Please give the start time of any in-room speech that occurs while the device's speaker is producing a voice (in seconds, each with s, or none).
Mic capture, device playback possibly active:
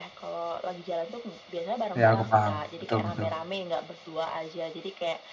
2.0 s